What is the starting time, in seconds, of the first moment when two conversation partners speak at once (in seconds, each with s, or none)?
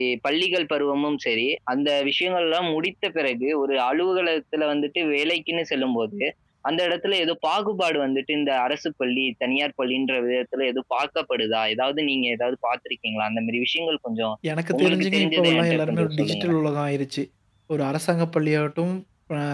14.8 s